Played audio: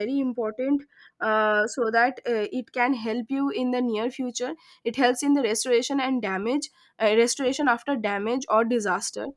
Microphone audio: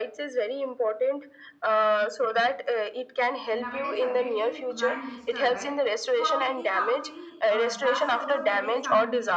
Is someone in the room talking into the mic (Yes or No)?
Yes